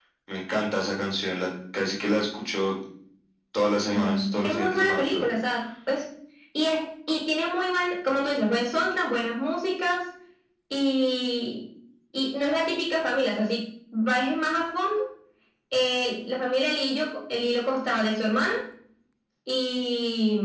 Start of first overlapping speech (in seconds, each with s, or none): 3.9 s